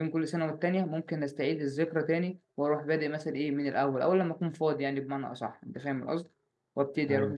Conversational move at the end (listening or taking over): listening